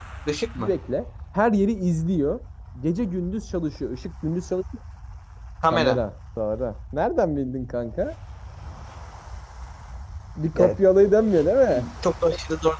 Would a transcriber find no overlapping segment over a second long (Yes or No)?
Yes